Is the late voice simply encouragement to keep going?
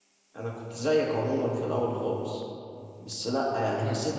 Yes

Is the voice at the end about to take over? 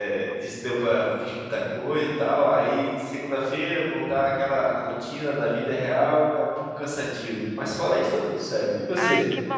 Yes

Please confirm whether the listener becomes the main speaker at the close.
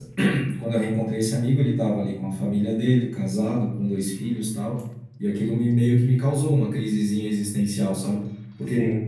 No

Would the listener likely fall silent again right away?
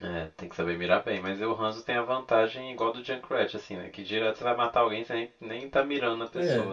No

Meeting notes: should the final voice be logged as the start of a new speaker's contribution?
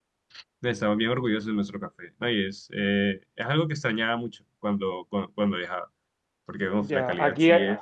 Yes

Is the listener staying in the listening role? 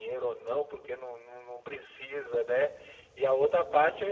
Yes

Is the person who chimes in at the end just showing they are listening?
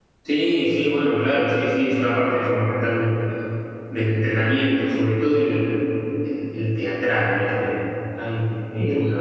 Yes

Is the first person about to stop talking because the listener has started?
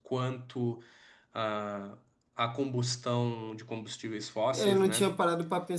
Yes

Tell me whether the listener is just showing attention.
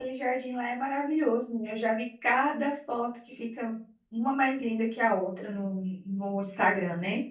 No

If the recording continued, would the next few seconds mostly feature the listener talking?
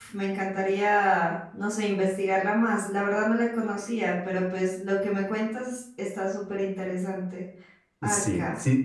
Yes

